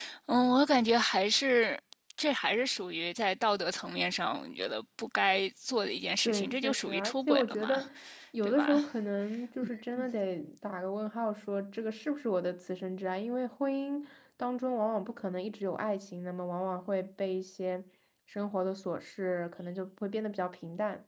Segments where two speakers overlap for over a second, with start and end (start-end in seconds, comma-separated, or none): 6.2-7.8